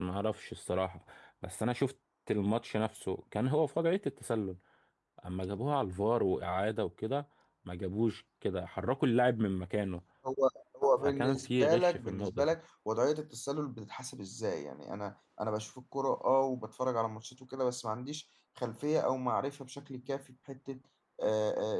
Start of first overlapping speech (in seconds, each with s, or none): 11.0 s